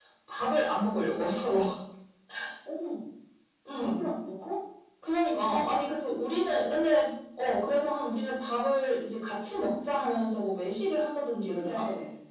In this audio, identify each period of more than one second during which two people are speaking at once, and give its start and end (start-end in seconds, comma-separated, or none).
none